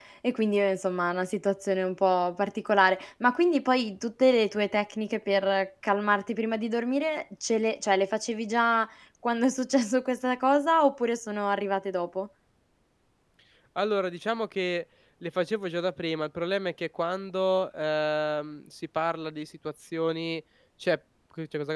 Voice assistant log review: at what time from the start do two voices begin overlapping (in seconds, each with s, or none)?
none